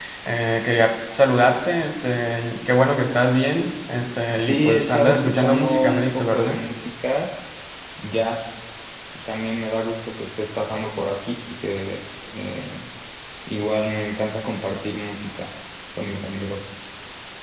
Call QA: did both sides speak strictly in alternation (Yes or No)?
No